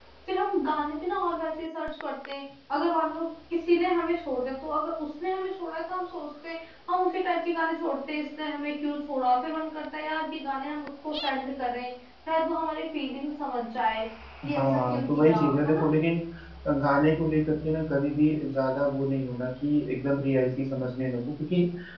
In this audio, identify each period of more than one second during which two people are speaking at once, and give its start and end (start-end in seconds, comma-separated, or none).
14.5-15.8